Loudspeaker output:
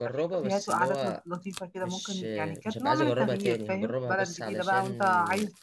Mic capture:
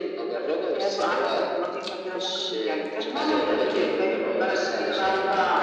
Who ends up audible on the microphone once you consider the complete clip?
echo only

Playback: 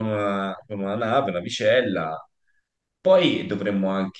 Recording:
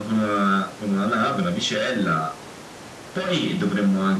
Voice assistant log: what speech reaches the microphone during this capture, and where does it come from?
echo only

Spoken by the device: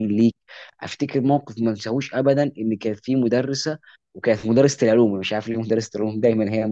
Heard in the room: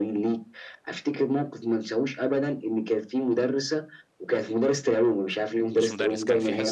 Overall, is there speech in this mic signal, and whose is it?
both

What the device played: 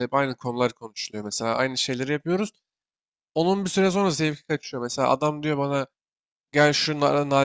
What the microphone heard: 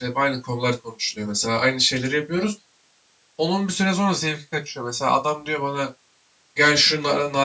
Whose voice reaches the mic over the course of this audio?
echo only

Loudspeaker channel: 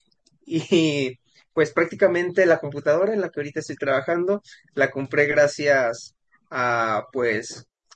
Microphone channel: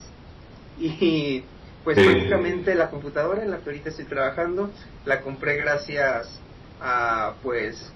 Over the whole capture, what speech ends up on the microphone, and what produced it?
both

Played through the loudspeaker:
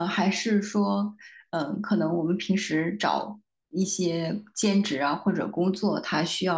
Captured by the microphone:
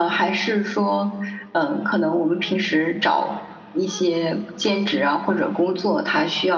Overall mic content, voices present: echo only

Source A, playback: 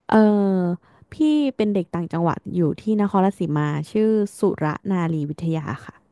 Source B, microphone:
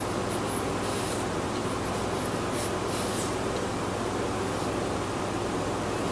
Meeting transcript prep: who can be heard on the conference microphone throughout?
neither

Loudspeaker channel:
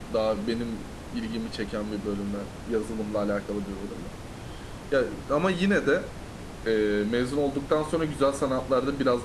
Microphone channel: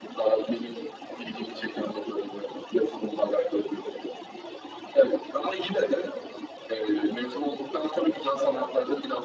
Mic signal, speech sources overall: both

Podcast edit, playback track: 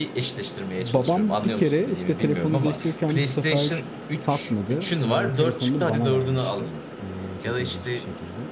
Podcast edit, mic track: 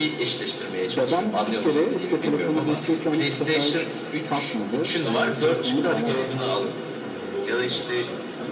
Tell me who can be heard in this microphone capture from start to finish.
both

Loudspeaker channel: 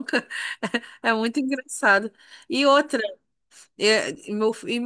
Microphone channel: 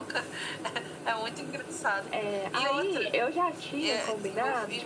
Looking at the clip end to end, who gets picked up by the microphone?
both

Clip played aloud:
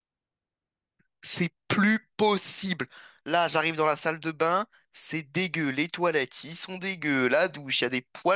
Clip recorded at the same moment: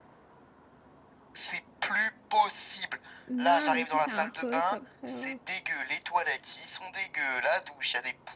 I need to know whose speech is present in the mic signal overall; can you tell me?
both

